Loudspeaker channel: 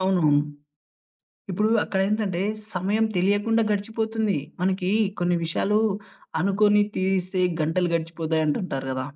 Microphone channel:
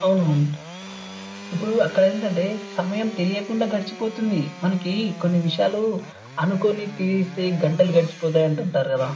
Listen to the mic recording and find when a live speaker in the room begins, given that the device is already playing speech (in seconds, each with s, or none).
none